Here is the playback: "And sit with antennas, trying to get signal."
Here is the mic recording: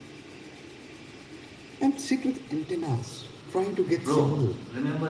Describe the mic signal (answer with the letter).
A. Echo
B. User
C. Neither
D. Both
D